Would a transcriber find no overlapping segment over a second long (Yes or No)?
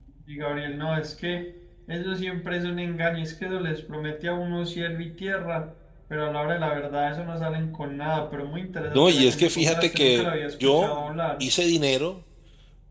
No